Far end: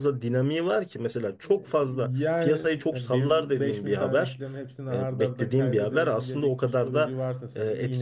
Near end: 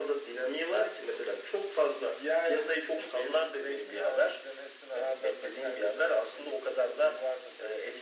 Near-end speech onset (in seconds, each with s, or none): none